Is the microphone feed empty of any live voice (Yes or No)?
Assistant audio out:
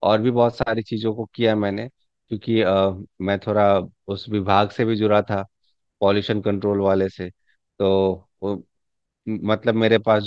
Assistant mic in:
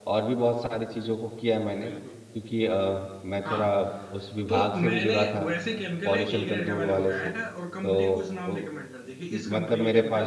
No